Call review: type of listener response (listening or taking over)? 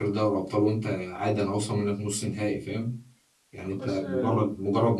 listening